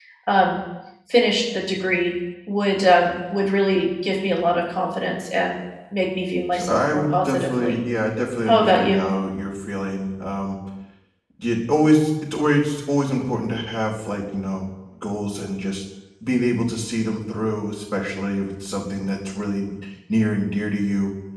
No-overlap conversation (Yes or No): No